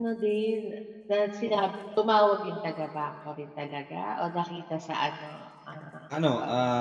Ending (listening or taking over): taking over